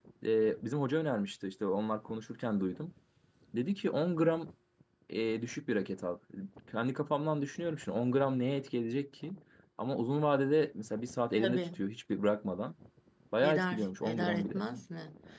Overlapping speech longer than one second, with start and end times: 13.4-14.6

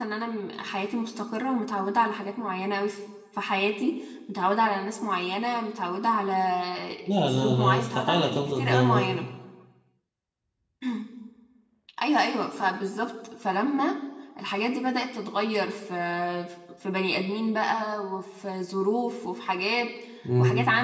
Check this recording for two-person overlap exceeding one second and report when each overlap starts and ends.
7.2-9.2

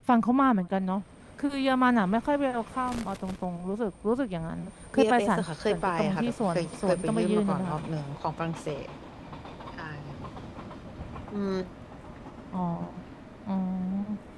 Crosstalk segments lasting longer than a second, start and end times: 4.9-7.8

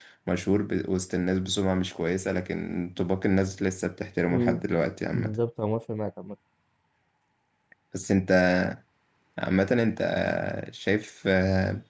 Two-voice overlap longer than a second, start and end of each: none

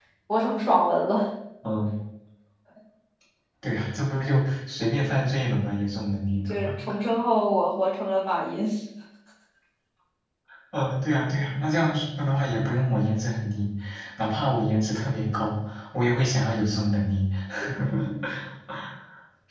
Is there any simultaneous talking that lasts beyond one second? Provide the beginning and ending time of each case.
none

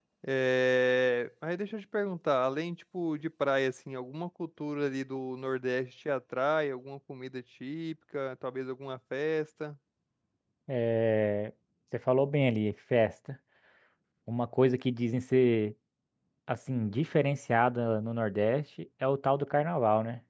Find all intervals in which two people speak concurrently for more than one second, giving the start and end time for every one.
none

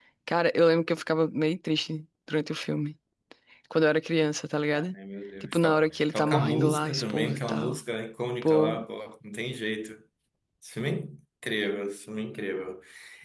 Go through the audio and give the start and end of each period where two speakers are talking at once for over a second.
5.4-7.8

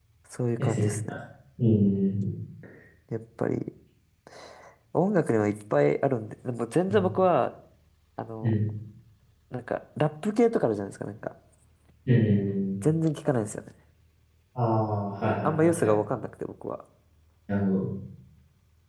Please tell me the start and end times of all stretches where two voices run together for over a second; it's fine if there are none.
none

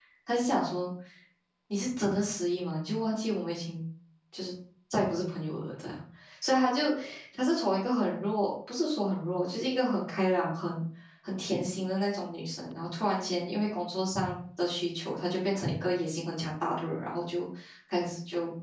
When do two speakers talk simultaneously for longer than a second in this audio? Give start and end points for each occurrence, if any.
none

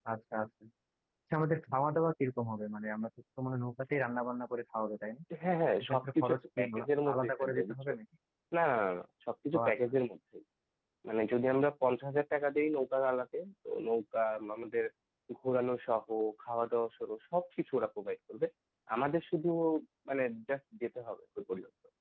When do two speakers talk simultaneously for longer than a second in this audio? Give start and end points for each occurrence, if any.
5.8-7.7

